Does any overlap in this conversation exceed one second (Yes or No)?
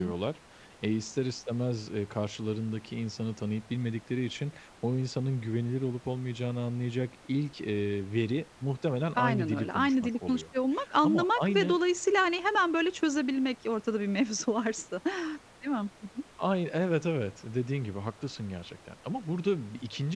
Yes